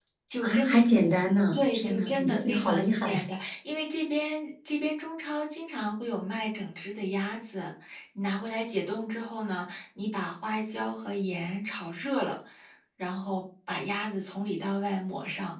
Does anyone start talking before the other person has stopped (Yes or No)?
Yes